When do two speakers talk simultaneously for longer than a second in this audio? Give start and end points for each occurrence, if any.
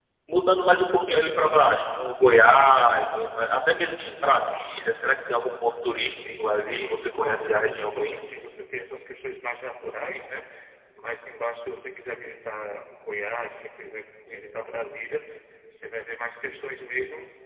5.9-8.2

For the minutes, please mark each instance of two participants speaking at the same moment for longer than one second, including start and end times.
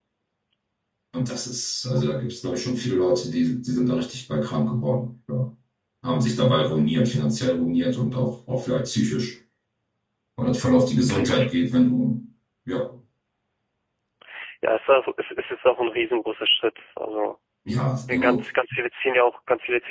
none

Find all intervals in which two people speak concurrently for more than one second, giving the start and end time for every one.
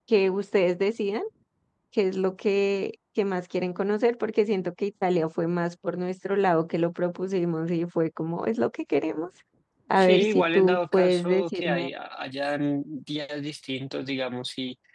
9.9-11.9

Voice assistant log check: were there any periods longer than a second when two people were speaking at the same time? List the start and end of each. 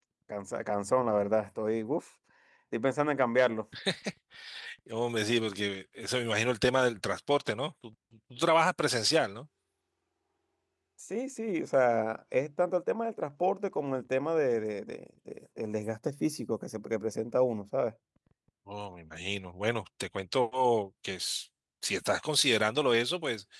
none

